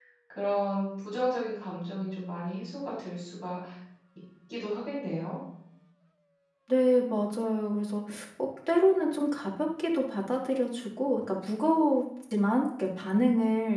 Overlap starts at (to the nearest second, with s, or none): none